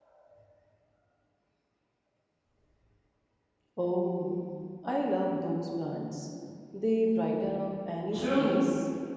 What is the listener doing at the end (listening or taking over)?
taking over